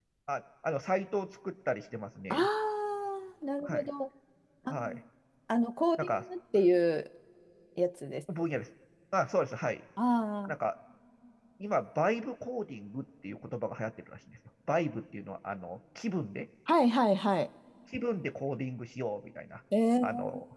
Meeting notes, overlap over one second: none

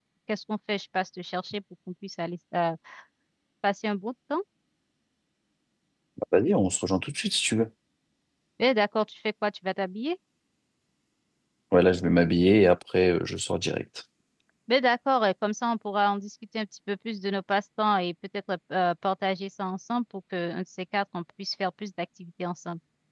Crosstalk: none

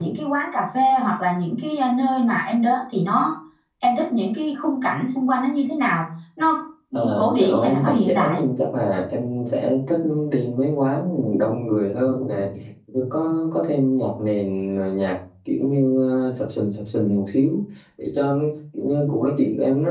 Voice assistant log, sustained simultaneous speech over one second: present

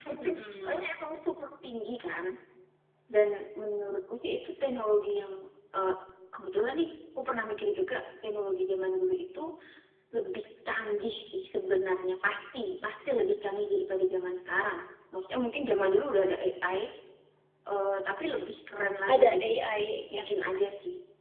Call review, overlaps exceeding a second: none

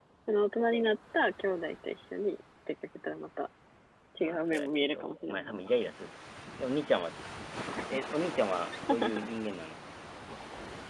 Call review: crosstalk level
present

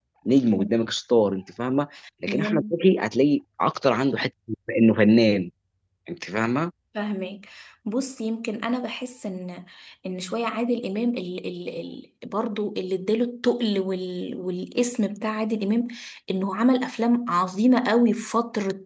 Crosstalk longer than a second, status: none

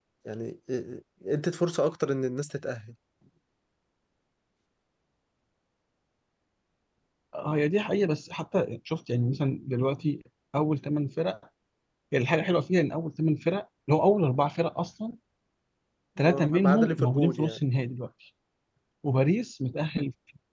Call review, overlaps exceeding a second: present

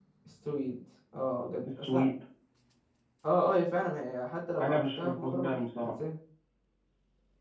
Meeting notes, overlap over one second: present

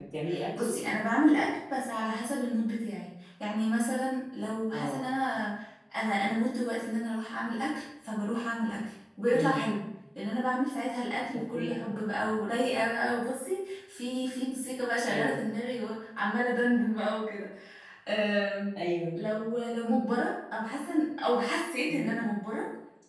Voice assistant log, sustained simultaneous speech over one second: none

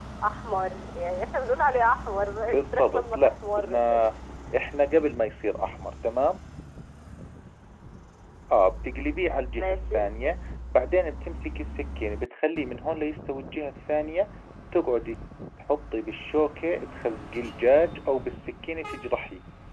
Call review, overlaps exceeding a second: present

